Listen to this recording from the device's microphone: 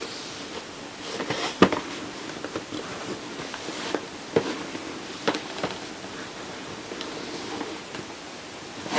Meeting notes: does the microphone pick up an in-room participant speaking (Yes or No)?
No